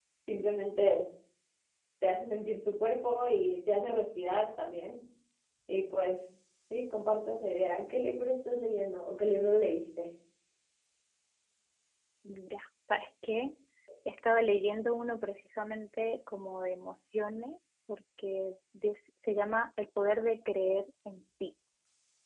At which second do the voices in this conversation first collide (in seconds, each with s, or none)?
none